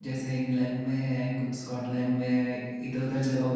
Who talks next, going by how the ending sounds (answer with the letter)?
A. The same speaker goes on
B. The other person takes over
A